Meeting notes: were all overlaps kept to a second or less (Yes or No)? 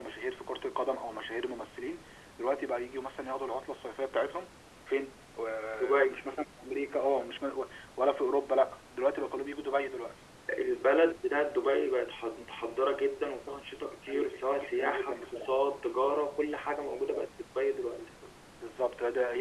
No